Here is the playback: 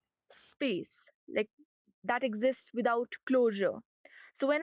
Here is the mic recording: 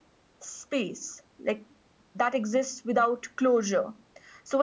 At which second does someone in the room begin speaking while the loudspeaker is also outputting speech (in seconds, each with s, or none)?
none